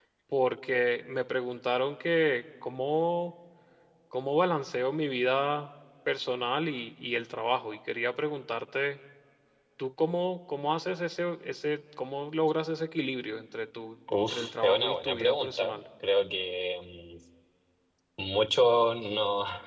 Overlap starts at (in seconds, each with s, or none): 14.1 s